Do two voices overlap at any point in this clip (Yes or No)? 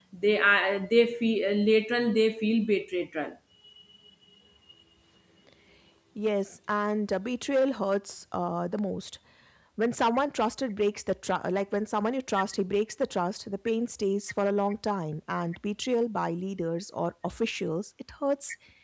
No